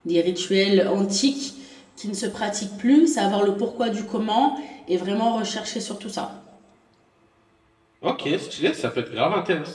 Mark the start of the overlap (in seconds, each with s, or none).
none